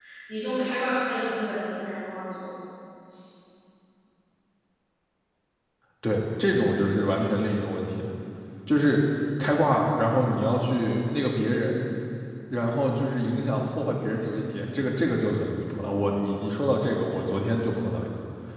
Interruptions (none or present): none